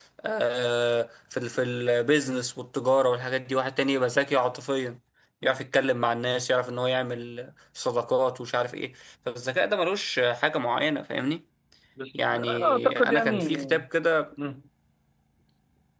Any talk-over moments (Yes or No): Yes